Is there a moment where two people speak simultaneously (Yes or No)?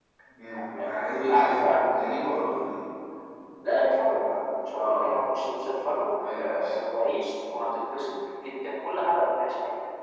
Yes